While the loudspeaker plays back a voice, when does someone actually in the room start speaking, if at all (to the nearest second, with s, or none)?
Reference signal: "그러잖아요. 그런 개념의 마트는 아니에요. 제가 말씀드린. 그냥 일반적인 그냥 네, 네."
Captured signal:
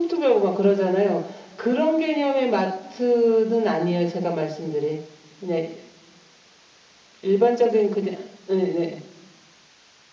none